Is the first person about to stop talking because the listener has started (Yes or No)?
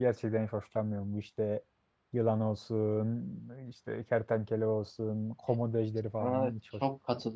Yes